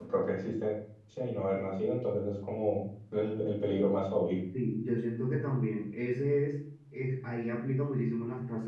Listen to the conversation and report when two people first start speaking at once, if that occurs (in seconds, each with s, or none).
none